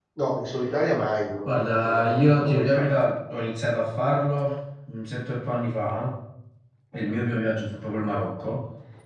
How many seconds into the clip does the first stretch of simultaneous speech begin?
1 s

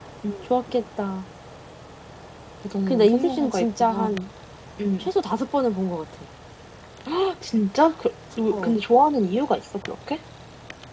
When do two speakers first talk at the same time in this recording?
3 s

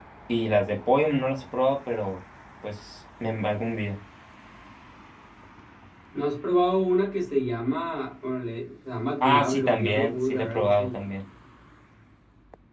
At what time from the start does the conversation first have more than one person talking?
9 s

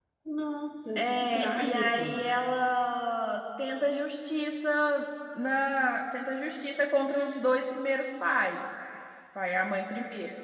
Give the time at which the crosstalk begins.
1 s

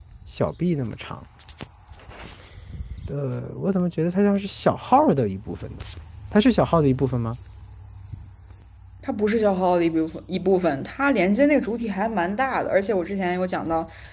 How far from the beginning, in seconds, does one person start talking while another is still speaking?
none

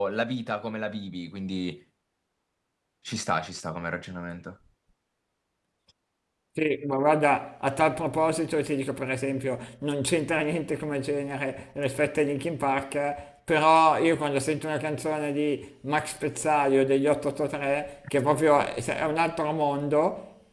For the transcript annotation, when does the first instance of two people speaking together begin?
none

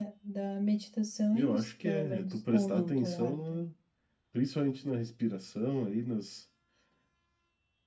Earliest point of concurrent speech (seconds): 1 s

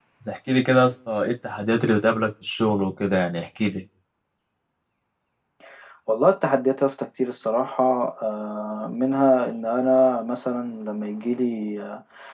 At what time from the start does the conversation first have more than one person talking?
none

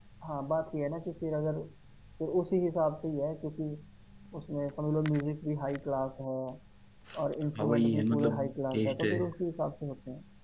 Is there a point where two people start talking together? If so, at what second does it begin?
8 s

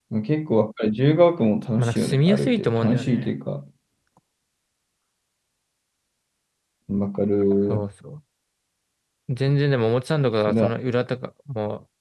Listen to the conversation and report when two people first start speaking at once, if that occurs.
2 s

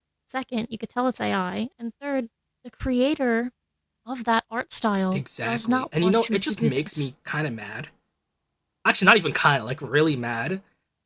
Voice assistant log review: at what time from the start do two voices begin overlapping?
5 s

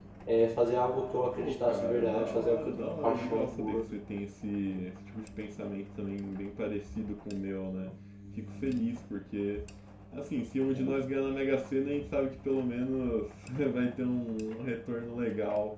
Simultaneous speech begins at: 1 s

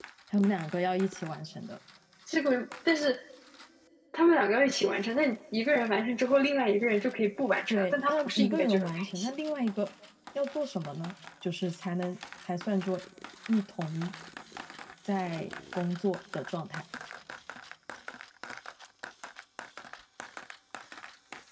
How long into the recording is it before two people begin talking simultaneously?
8 s

